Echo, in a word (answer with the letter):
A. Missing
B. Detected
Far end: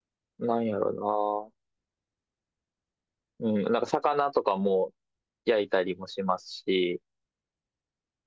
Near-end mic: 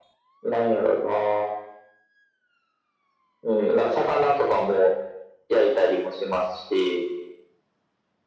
B